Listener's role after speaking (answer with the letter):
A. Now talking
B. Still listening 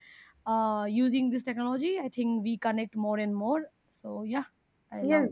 A